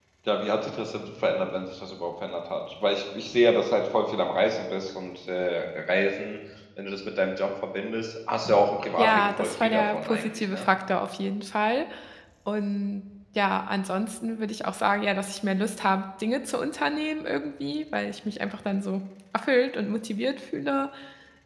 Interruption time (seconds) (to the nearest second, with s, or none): 9 s